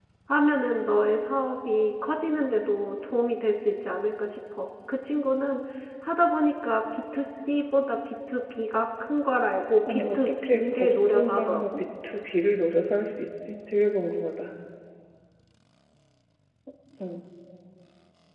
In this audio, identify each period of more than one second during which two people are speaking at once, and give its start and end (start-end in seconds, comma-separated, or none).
9.9-11.8